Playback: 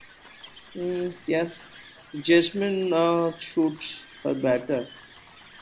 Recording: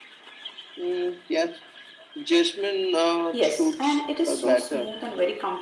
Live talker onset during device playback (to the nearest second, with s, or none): 3 s